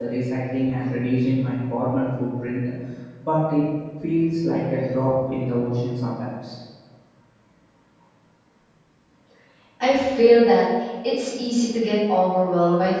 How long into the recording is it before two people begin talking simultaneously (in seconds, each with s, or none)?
none